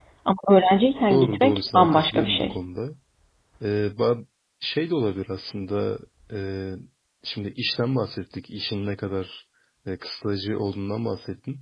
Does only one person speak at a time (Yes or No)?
No